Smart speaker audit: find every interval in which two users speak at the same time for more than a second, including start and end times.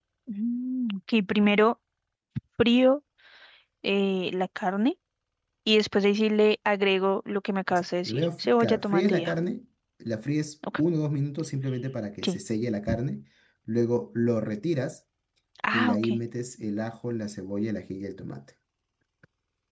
7.7-9.3

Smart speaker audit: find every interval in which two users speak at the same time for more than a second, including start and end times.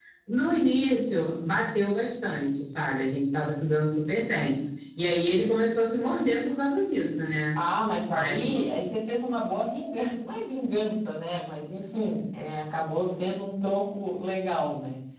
none

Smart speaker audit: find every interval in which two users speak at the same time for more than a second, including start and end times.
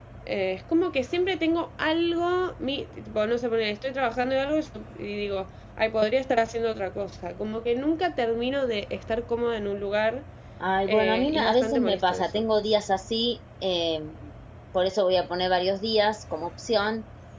10.9-12.4

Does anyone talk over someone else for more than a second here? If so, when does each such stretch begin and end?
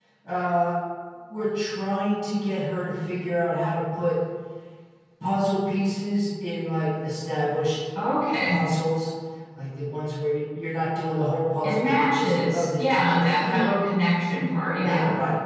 11.6-13.7

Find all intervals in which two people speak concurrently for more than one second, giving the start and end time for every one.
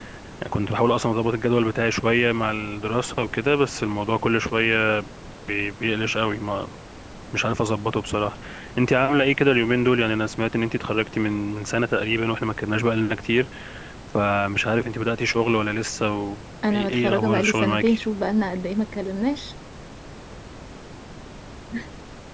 16.7-18.0

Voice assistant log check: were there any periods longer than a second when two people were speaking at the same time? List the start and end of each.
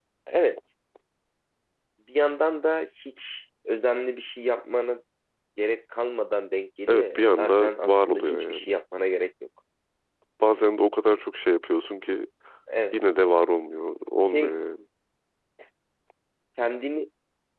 6.9-8.7

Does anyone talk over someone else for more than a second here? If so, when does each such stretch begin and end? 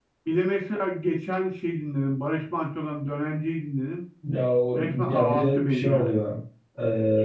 4.8-6.2

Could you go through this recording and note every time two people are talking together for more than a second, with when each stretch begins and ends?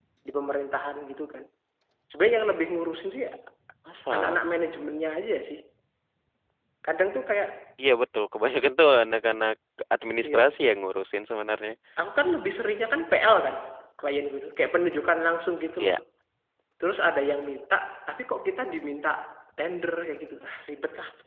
none

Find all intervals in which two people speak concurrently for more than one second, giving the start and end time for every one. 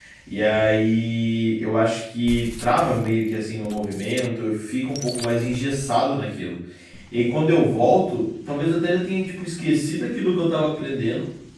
none

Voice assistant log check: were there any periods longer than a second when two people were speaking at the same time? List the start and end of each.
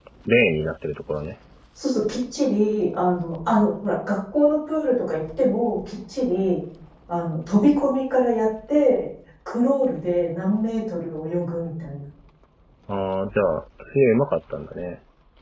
none

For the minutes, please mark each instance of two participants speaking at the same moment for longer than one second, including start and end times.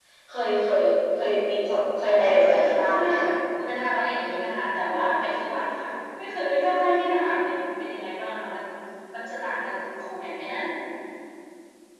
2.0-3.2

